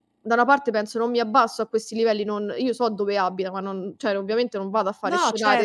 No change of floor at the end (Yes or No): Yes